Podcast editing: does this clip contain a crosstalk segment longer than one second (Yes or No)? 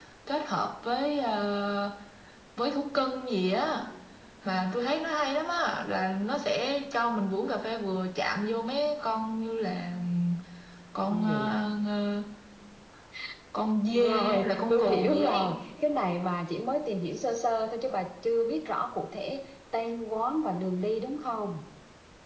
Yes